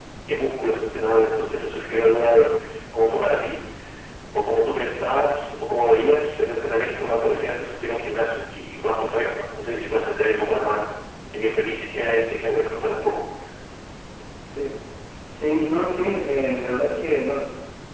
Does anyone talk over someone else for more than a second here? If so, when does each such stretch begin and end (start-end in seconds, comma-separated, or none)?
none